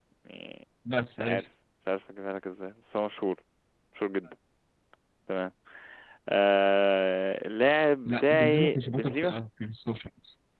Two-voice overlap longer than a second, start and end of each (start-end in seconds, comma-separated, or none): 8.1-9.4